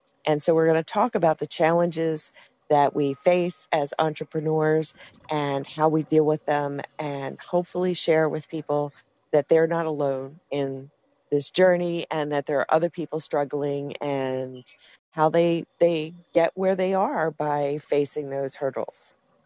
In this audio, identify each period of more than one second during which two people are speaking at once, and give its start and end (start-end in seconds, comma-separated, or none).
none